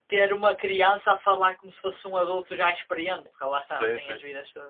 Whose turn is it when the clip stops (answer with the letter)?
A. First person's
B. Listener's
B